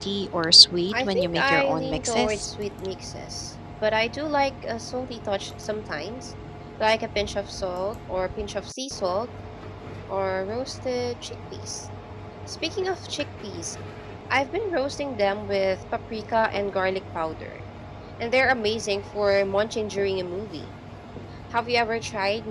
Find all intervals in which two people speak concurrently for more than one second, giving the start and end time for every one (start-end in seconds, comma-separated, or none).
0.9-2.5